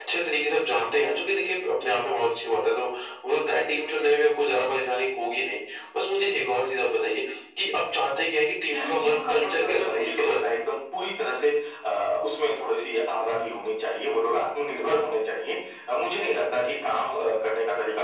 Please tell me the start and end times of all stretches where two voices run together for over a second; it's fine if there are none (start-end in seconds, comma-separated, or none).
8.7-10.7